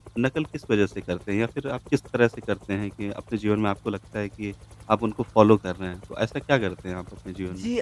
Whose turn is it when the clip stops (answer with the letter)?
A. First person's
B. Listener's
B